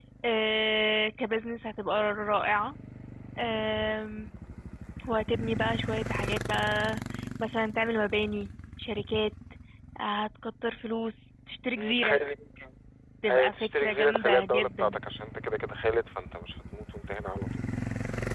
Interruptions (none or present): present